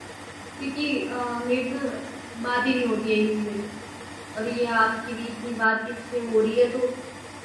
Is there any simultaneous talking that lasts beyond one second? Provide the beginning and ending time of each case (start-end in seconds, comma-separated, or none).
none